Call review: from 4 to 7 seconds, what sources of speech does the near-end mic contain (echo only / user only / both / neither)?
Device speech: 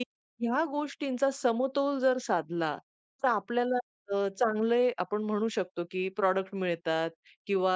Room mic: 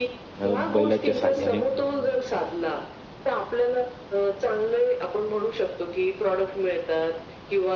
echo only